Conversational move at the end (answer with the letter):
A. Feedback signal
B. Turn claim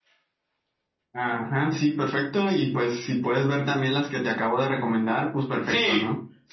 B